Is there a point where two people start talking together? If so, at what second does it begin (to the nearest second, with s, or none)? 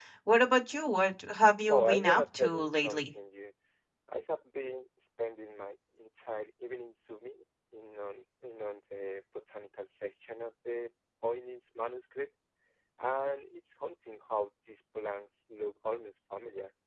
2 s